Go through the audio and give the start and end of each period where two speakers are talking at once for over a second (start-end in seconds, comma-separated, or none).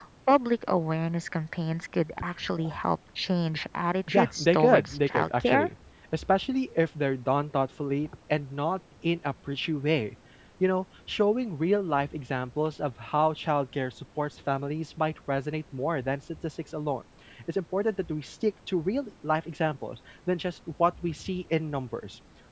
4.1-5.7